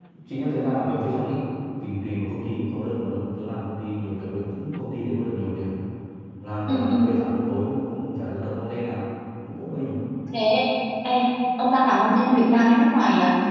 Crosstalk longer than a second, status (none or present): none